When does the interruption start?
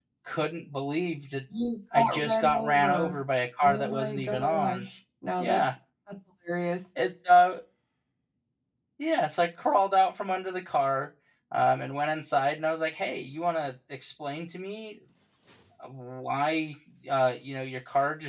2 s

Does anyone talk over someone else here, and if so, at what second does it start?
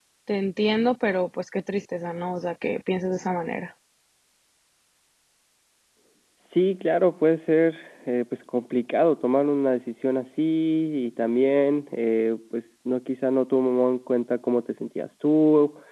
none

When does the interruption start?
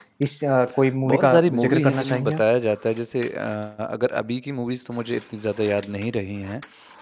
1 s

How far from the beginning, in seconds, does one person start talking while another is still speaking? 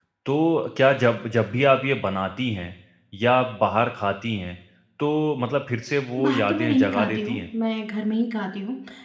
6 s

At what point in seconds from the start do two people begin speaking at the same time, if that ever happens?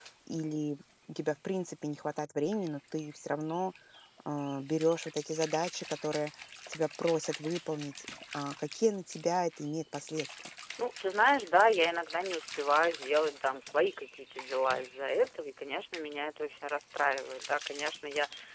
none

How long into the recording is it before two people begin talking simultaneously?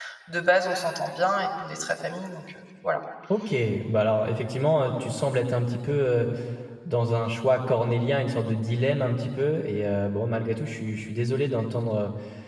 none

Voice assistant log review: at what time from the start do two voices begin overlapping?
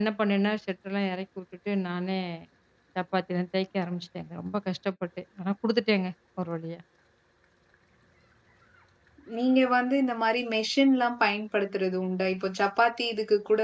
none

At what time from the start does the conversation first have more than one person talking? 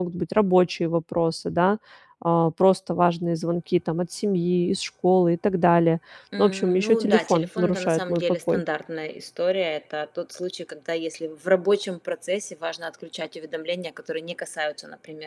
6 s

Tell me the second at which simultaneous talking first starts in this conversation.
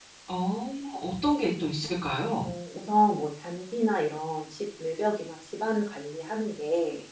none

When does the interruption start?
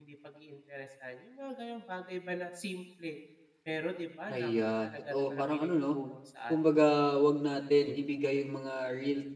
4 s

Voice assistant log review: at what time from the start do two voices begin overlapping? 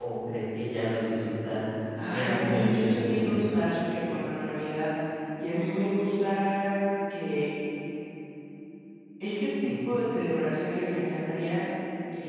2 s

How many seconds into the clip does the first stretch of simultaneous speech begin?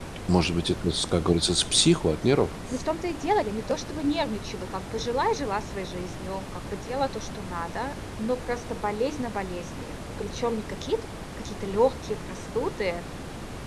none

